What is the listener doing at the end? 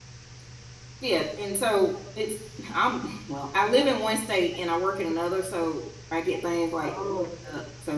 listening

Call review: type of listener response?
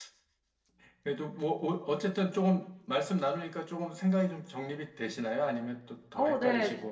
taking over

